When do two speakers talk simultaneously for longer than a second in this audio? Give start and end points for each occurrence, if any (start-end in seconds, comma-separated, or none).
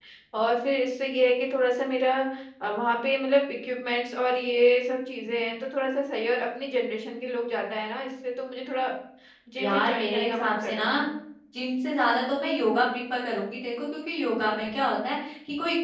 9.6-11.0